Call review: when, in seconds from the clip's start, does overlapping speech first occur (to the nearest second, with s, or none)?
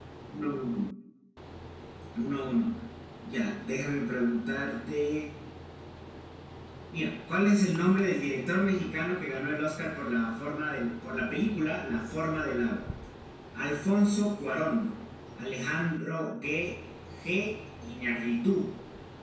none